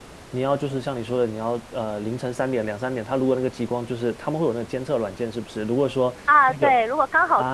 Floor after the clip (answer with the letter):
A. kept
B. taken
B